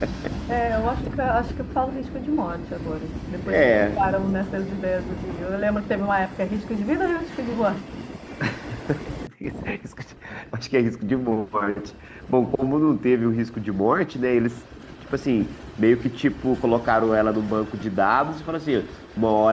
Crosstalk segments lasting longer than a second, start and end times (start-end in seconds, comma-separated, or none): none